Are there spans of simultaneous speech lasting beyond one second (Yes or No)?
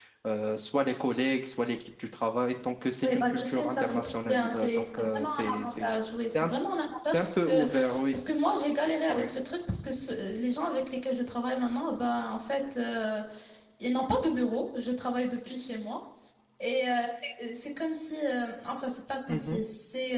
Yes